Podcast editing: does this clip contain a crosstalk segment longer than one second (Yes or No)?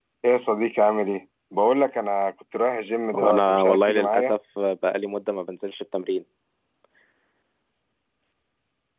Yes